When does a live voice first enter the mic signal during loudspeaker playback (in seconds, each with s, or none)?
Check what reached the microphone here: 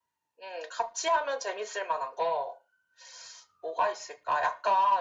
none